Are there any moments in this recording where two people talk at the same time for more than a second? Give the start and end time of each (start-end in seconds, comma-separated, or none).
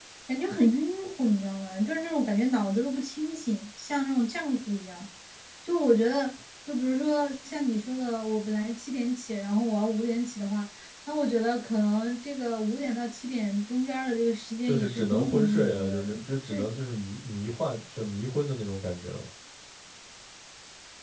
14.6-16.0